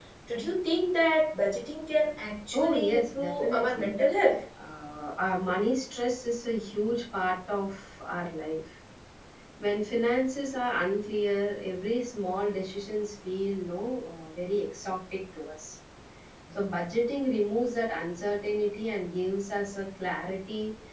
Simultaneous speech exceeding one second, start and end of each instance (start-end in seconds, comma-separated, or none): 2.5-3.9